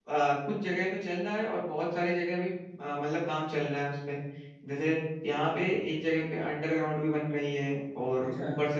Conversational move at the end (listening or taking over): listening